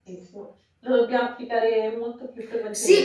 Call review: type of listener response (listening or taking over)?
taking over